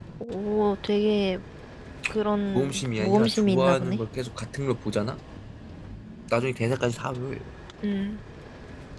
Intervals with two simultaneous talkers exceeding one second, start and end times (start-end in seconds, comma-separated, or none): 2.5-4.0